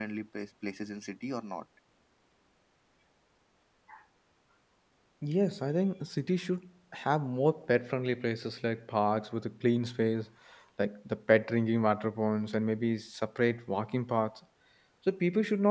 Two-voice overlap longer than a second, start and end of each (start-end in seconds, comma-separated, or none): none